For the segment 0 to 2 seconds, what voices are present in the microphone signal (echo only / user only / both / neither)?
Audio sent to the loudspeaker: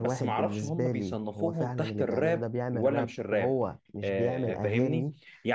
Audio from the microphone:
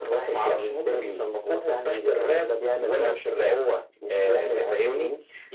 echo only